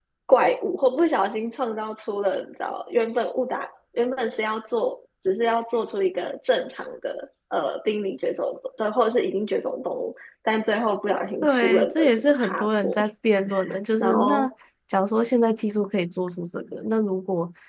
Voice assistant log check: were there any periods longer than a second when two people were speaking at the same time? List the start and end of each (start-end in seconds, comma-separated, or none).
11.4-13.0